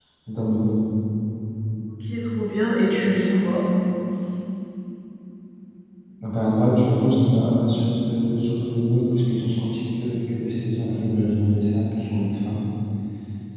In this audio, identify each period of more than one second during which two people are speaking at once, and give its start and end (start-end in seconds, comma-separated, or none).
none